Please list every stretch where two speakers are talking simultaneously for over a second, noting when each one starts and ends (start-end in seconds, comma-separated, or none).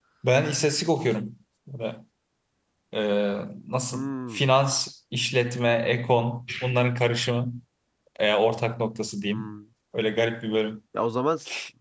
none